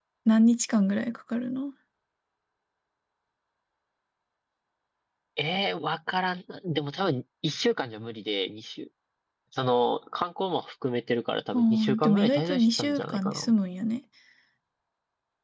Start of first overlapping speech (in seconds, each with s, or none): 11.5 s